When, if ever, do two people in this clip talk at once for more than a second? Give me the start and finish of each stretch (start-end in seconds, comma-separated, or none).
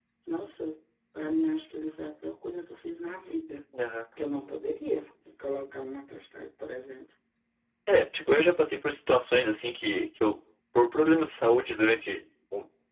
none